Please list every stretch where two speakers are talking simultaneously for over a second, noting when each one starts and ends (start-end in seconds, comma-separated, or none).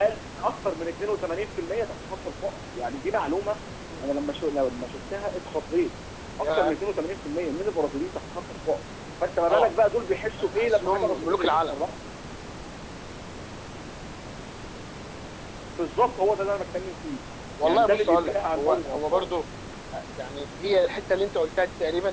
10.4-11.7, 17.6-19.3